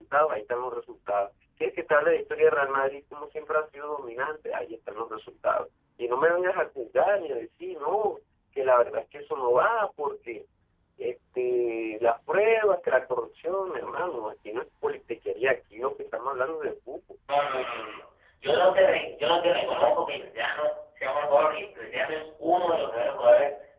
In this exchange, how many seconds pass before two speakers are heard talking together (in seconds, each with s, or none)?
none